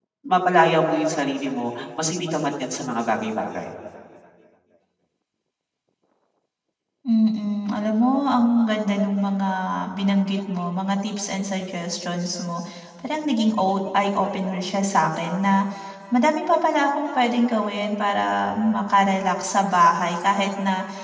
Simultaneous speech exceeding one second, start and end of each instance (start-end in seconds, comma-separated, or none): none